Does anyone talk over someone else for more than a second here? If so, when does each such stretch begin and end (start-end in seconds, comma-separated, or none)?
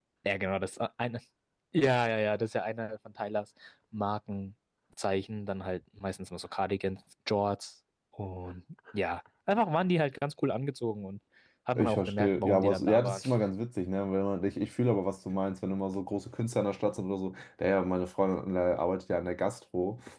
11.8-13.2